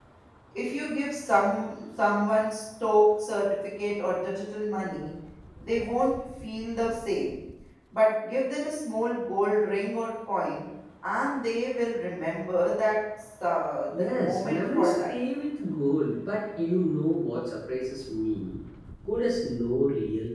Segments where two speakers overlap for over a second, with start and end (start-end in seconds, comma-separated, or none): 13.9-15.2